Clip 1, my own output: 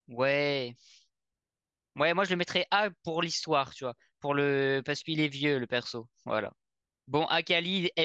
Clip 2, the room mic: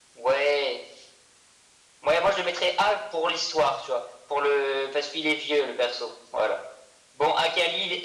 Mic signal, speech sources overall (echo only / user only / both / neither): echo only